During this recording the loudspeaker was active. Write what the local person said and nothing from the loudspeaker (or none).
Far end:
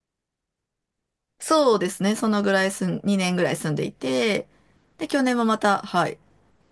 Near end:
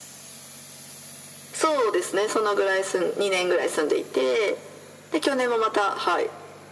none